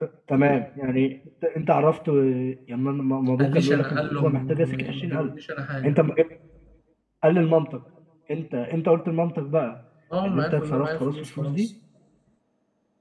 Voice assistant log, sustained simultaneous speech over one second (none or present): present